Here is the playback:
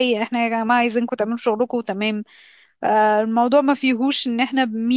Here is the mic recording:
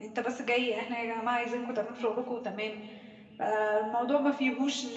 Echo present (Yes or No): Yes